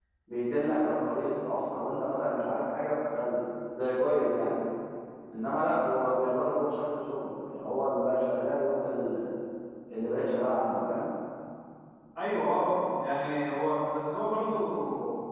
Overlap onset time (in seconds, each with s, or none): none